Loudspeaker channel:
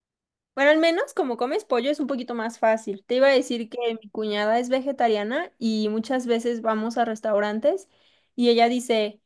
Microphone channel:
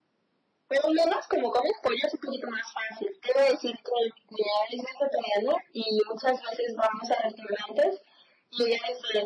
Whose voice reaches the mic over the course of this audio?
echo only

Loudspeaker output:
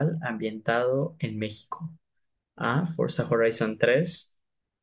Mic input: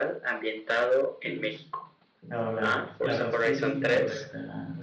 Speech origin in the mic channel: both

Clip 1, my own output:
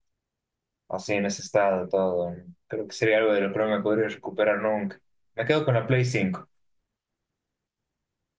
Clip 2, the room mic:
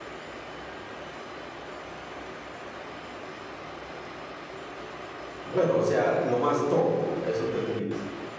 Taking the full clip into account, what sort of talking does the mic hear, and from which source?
user only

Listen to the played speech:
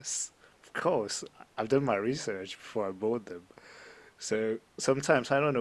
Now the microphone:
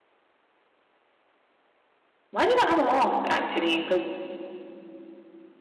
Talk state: user only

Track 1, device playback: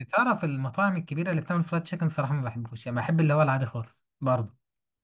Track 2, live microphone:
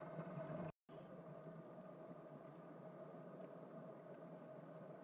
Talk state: neither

